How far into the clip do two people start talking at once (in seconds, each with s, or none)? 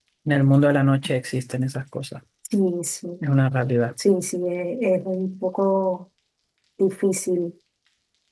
none